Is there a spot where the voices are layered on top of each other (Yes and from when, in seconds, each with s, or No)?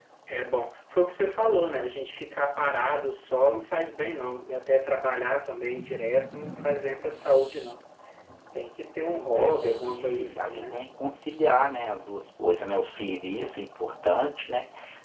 Yes, from 9.3 s